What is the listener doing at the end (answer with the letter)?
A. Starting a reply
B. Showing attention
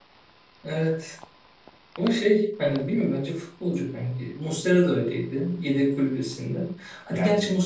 B